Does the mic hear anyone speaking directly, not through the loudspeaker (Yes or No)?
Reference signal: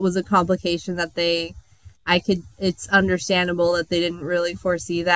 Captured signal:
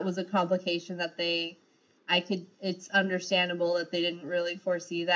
No